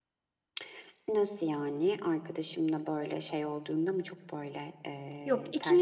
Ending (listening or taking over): taking over